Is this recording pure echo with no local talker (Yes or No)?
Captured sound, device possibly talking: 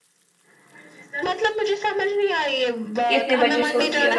No